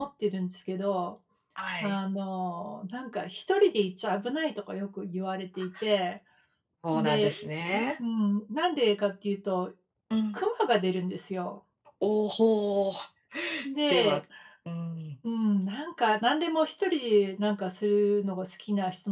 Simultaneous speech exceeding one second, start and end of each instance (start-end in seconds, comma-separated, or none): none